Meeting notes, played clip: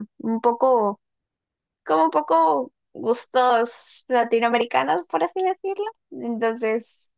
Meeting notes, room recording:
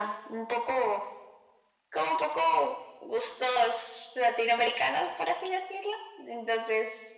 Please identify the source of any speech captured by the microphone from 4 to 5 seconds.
echo only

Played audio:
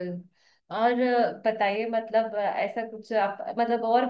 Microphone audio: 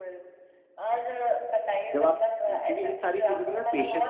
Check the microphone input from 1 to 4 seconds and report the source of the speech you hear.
both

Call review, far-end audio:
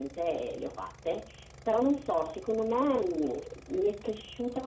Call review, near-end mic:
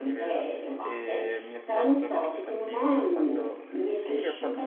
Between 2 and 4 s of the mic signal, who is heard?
both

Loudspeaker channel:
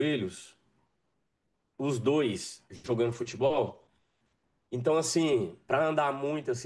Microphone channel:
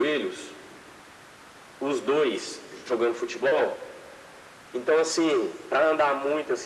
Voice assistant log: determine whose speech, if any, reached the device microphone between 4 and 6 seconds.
echo only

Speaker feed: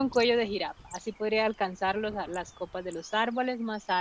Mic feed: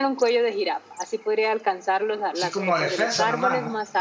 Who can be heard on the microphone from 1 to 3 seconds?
both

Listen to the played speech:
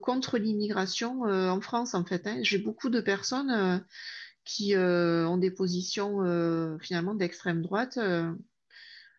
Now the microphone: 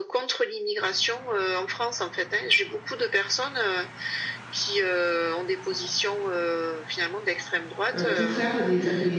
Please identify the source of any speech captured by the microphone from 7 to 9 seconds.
both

